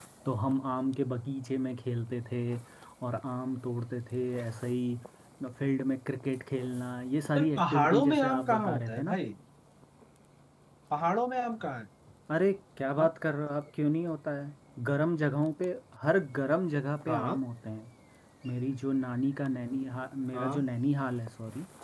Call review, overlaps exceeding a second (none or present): present